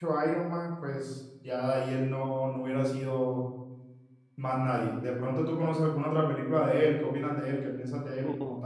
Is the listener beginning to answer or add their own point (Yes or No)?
Yes